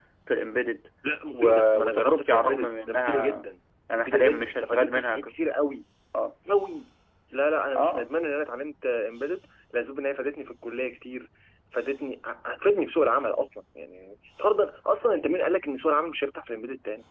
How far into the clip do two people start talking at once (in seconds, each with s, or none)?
1.3 s